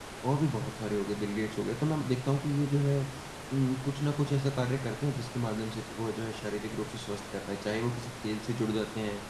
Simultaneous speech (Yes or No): No